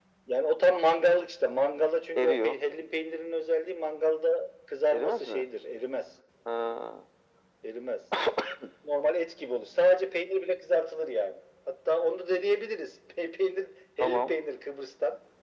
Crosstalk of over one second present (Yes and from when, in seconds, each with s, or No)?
No